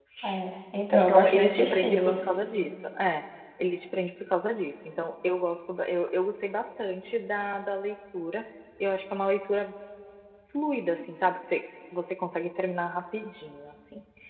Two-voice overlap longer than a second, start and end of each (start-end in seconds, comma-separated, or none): 0.9-2.2